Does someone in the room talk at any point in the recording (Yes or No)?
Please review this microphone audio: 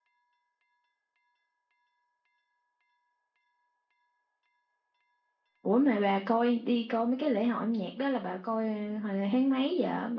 Yes